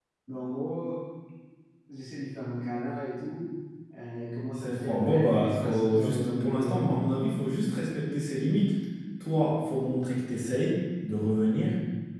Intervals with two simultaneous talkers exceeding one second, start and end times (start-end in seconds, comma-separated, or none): 4.5-6.8